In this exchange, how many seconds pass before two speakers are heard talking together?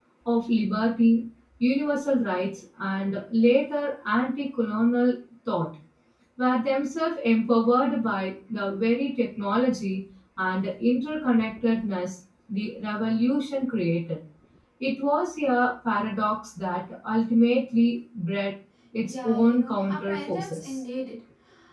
19.0 s

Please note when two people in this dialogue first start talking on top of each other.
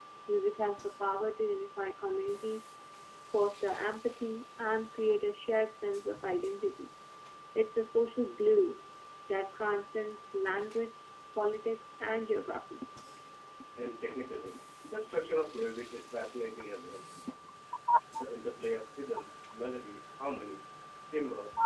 none

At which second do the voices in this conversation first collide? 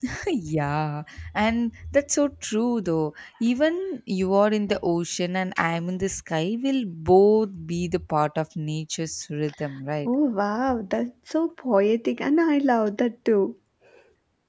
none

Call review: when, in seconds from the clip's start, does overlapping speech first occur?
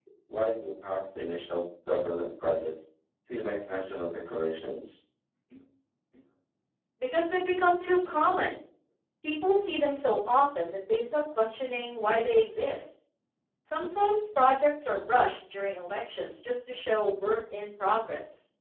none

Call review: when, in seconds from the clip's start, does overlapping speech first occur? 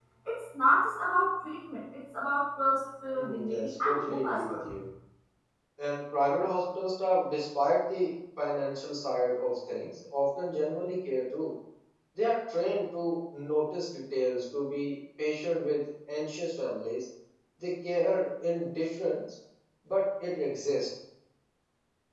3.1 s

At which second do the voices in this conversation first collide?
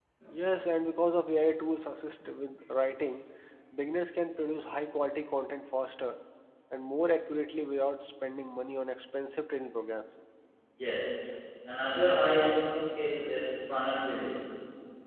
none

